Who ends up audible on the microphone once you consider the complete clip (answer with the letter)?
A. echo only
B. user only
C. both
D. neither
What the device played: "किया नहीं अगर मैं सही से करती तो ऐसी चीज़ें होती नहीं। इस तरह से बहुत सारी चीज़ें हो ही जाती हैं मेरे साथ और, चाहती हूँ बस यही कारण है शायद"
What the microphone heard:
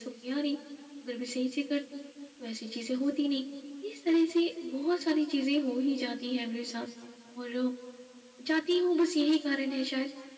A